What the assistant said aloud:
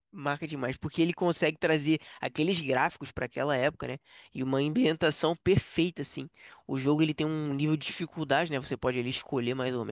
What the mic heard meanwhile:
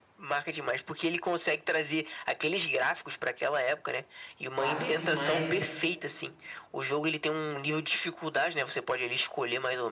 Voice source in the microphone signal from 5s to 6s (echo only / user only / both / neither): both